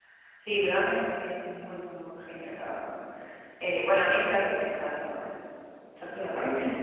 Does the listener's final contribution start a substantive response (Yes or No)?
Yes